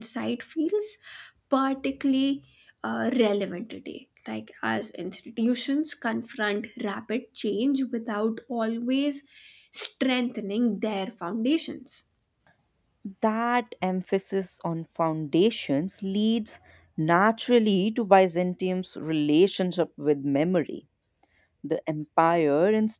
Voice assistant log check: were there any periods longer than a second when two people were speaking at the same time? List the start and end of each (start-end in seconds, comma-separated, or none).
none